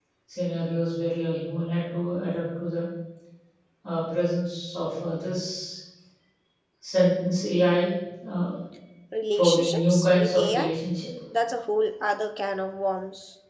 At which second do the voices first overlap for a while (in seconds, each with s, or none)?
9.3 s